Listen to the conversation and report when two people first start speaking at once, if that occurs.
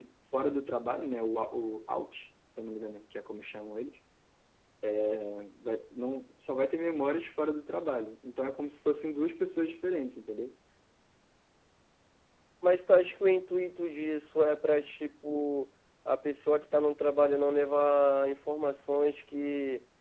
none

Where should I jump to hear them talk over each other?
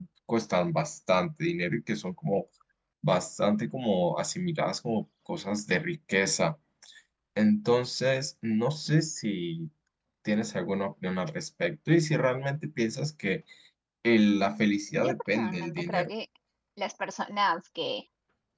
14.1 s

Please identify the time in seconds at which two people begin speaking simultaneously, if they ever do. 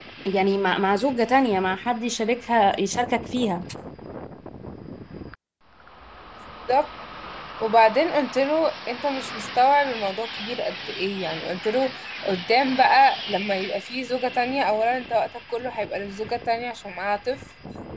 none

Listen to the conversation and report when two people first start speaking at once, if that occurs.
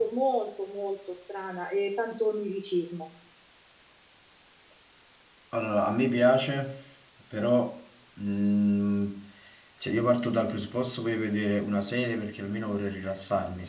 none

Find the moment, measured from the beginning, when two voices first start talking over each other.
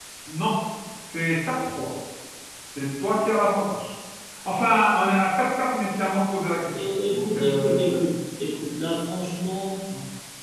6.7 s

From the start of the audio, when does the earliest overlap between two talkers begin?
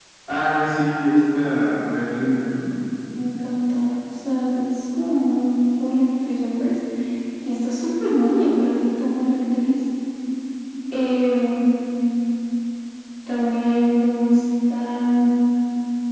none

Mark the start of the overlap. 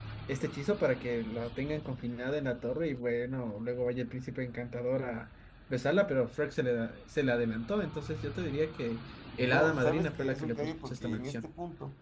9.4 s

